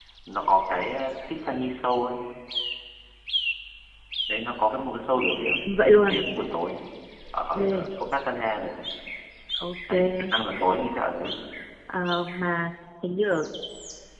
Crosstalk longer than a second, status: none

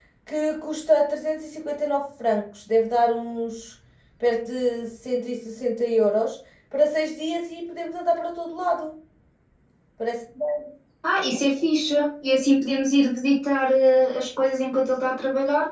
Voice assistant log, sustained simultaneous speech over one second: none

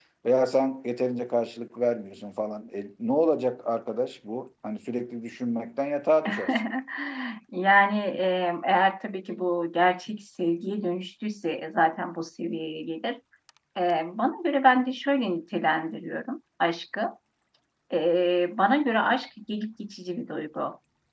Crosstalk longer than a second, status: none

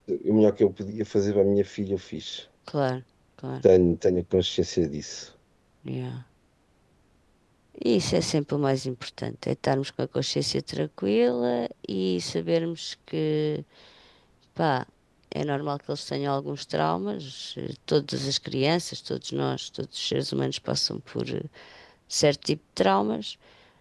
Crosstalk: none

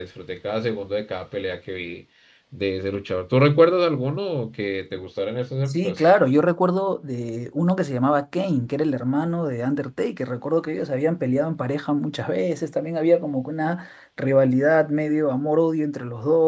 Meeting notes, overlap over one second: none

